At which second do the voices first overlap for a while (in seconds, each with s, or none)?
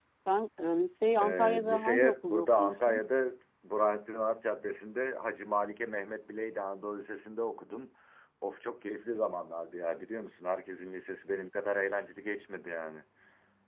1.2 s